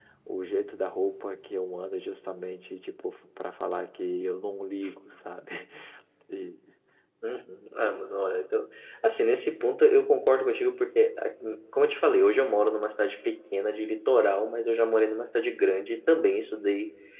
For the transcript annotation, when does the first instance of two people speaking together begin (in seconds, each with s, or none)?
none